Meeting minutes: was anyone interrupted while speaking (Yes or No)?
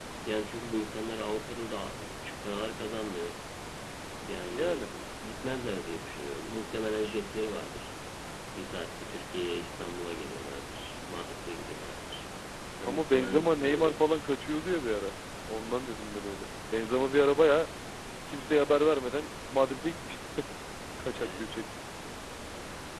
Yes